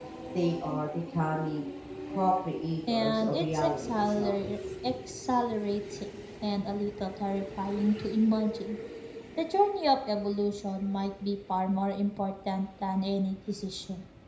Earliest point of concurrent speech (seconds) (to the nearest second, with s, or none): 3 s